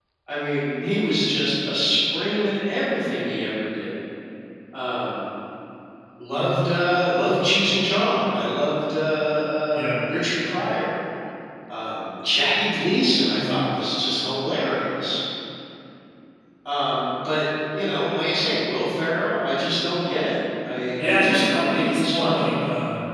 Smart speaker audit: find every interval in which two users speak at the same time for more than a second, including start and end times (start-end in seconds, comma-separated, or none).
21.0-22.4